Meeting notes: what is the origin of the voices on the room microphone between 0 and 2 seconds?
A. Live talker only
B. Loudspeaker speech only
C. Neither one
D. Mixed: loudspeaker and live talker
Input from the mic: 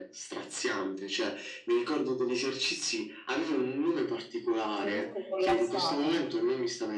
B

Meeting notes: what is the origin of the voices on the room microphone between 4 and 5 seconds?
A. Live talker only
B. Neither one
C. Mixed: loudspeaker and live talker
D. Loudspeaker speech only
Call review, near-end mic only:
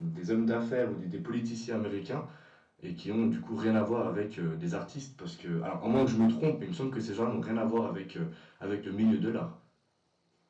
A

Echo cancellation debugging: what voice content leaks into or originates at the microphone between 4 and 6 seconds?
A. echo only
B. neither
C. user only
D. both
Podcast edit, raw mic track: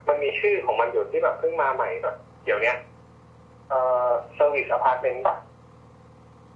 A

